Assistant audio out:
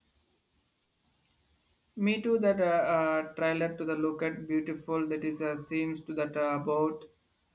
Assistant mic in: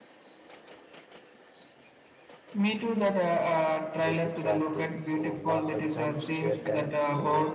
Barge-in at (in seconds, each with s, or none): 4.0 s